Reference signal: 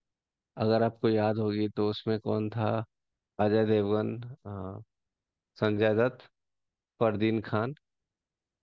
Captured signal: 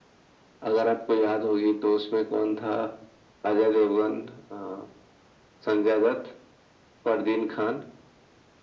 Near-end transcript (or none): none